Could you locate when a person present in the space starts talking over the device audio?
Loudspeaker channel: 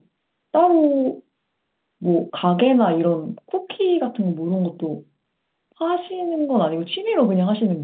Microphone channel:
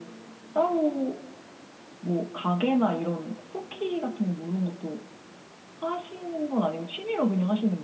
none

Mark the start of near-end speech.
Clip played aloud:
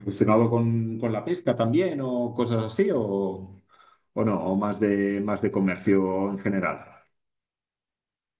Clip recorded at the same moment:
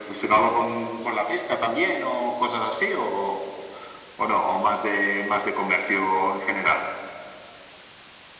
none

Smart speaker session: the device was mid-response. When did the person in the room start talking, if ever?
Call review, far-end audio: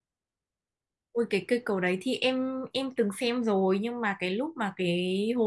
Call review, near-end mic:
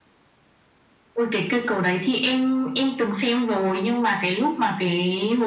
none

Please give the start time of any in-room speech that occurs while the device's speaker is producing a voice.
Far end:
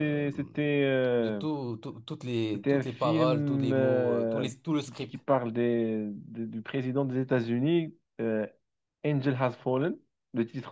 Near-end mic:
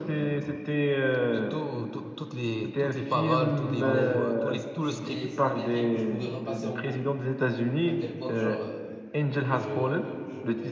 3.8 s

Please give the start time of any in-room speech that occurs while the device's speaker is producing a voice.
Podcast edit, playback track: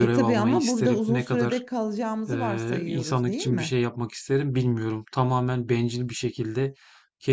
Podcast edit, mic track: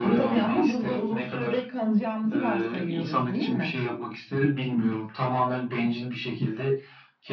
none

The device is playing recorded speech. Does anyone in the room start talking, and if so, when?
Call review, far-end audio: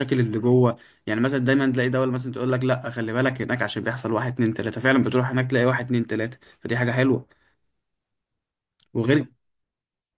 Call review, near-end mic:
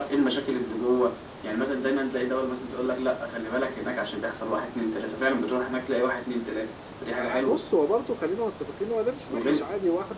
7.2 s

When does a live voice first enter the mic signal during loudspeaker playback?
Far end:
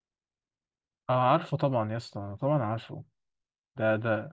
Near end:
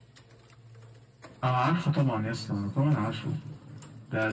none

